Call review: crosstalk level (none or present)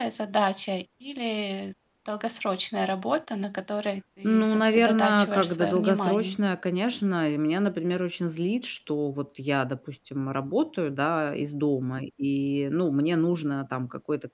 present